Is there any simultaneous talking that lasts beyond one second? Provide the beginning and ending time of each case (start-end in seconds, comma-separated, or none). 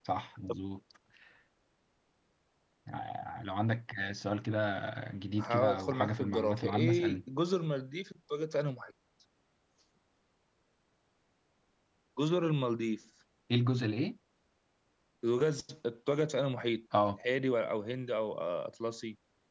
5.4-7.2